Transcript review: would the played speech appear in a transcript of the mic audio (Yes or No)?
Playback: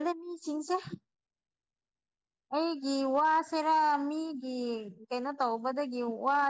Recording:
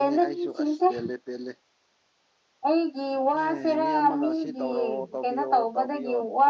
Yes